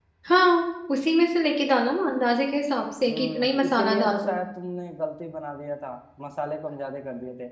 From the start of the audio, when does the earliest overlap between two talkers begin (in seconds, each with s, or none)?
3.1 s